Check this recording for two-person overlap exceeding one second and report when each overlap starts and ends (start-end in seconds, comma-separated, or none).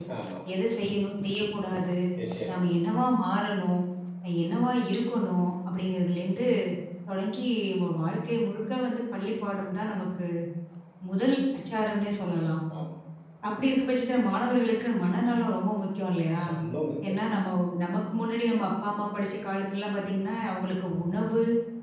none